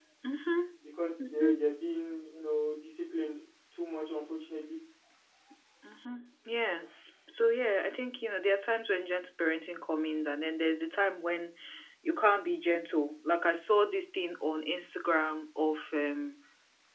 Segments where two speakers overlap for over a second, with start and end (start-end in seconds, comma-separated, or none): none